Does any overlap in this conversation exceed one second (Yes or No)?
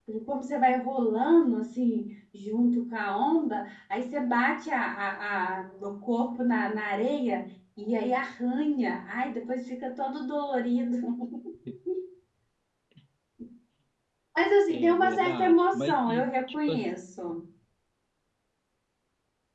Yes